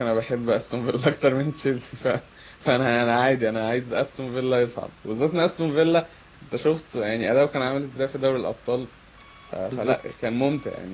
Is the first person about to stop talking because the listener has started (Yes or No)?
No